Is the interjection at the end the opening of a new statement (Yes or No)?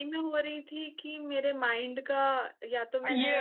Yes